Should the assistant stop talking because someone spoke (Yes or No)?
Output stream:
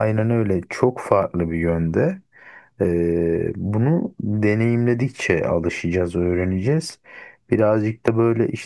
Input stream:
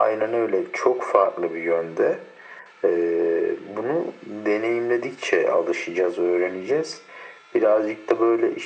No